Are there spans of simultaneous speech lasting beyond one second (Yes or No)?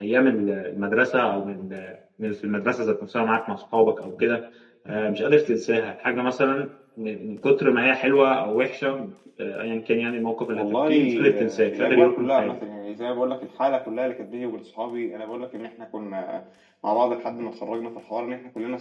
Yes